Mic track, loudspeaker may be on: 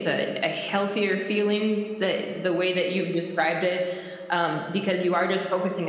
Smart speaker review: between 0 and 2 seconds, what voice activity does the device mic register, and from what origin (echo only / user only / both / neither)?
echo only